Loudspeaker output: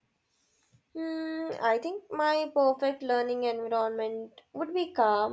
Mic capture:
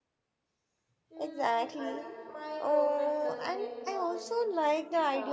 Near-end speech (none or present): present